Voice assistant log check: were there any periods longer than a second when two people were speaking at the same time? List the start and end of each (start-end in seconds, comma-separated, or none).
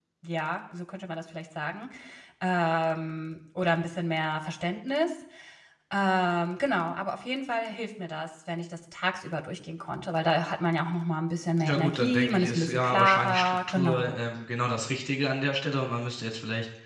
11.6-14.2